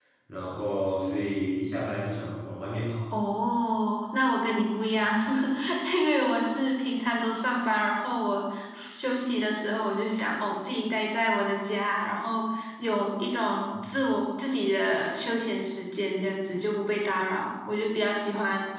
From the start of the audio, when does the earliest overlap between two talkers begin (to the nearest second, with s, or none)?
none